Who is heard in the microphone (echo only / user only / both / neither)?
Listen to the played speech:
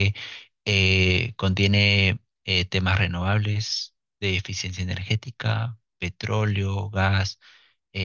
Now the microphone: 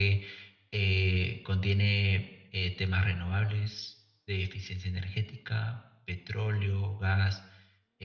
echo only